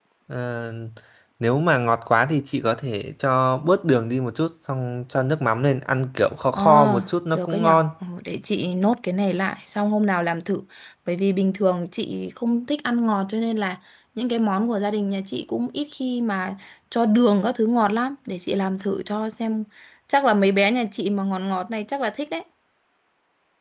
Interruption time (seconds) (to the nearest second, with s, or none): 7 s